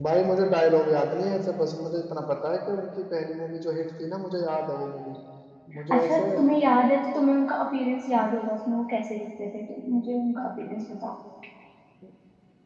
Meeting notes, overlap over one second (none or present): none